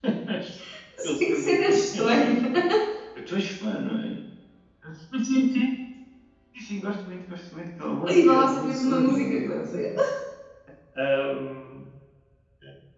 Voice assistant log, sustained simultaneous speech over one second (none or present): present